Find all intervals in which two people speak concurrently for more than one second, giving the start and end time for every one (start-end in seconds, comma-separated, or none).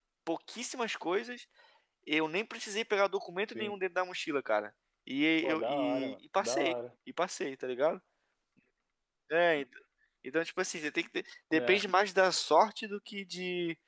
5.4-6.7